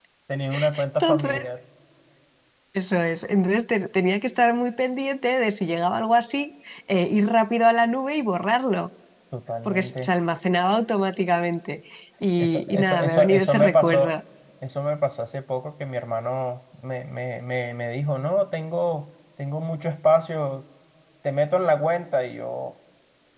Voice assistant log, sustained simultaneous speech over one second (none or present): present